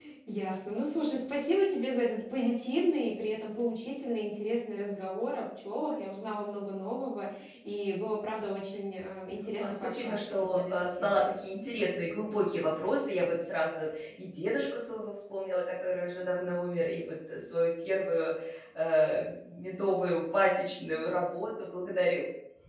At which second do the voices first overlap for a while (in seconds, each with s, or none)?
9.6 s